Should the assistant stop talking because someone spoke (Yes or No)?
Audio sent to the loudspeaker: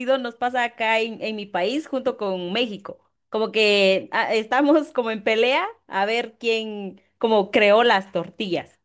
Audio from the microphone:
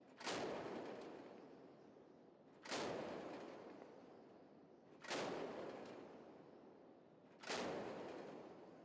No